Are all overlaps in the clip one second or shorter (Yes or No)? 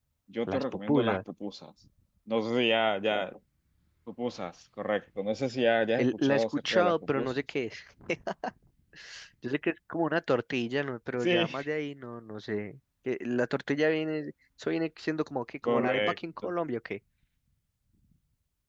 No